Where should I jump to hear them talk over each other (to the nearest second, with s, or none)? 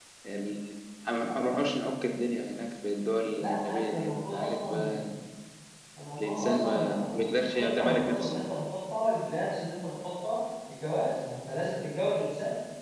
3 s